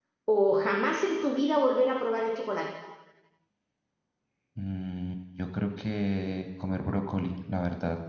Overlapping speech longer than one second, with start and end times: none

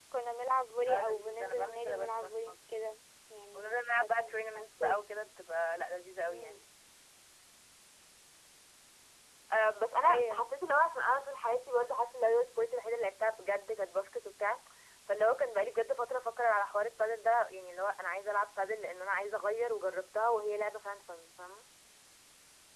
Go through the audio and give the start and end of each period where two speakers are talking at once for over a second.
0.9-2.5, 3.5-5.0

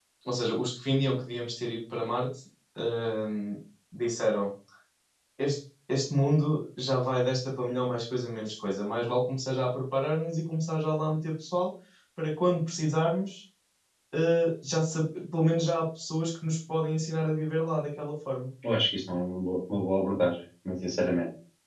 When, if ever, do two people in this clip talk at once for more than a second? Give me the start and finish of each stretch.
none

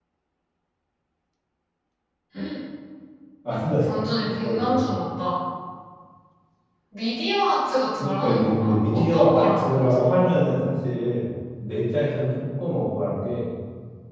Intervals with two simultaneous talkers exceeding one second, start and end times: 8.0-10.3

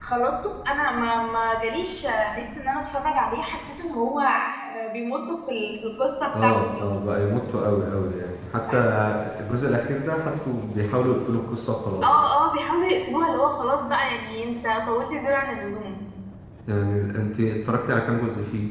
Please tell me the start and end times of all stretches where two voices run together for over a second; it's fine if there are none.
none

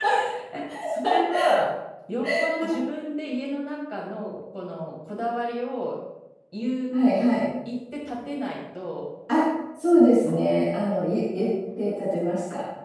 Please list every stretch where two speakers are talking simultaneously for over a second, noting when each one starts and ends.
none

